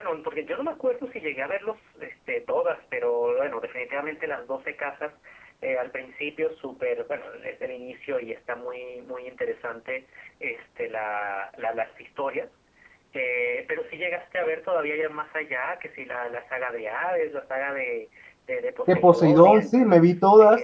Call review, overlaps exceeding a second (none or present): present